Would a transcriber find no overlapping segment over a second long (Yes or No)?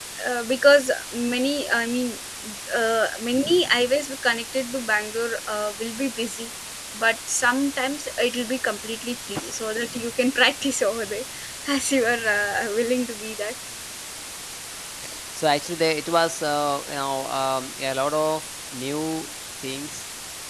Yes